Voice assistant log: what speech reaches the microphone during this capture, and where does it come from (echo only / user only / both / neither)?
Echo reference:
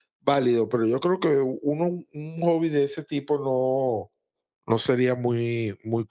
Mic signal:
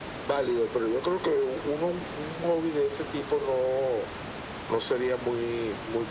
echo only